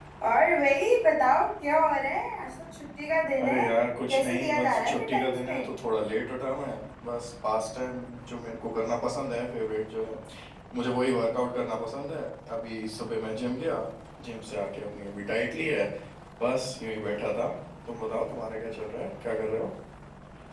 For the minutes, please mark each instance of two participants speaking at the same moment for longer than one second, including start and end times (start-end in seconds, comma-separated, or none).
4.1-5.7